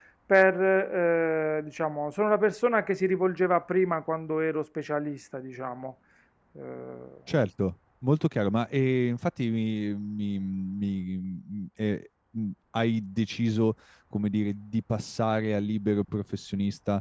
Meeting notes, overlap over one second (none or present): none